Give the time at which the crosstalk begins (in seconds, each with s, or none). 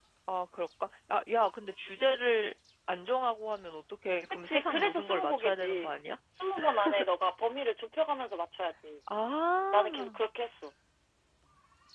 4.4 s